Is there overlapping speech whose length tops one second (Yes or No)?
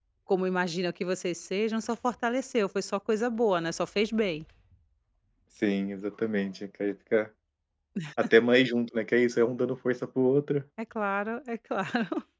No